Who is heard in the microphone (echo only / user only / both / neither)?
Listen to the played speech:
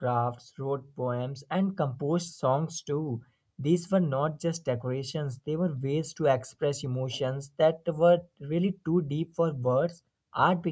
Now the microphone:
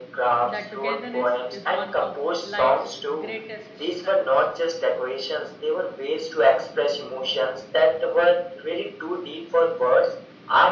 both